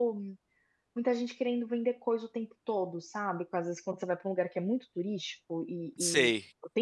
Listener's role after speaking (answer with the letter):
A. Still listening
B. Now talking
A